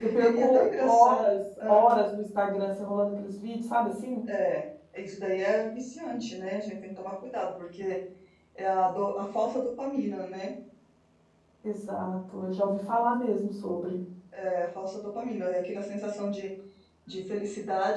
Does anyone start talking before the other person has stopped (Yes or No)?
Yes